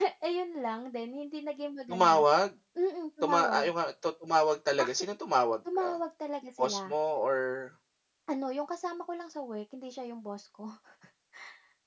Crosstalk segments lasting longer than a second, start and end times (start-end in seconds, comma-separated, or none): none